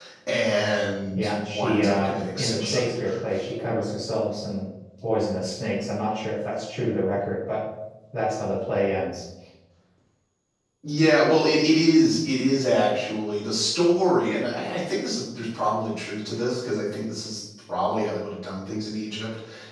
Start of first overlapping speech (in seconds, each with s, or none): 1.1 s